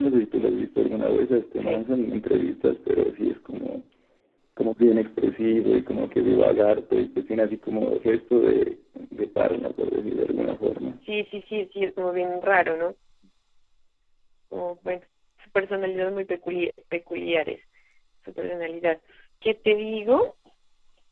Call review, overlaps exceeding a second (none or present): none